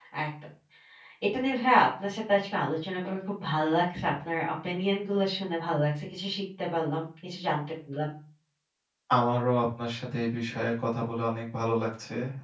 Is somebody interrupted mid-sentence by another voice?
No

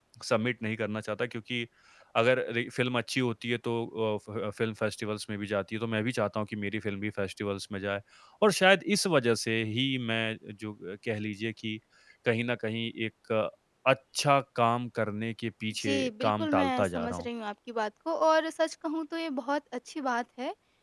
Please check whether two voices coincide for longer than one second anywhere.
Yes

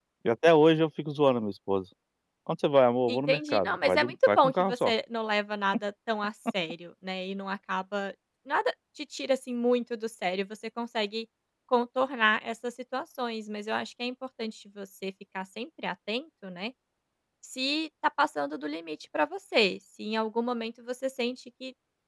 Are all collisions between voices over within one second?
No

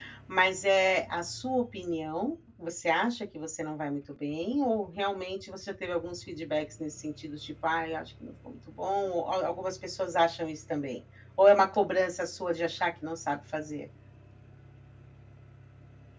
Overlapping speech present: No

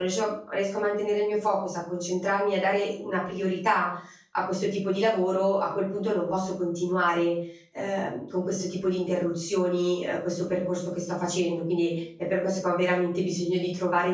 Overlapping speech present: No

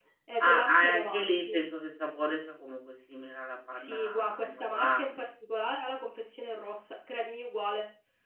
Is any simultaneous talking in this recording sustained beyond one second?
Yes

